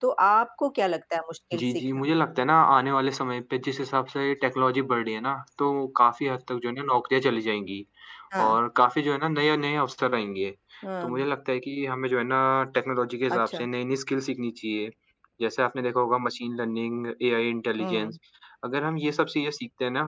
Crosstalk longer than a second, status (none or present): none